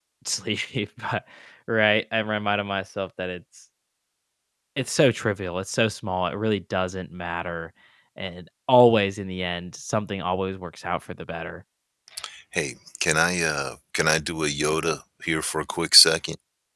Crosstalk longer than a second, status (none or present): none